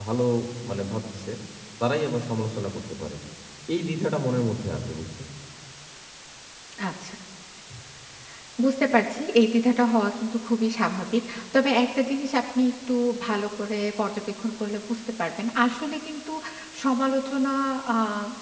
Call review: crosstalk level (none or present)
none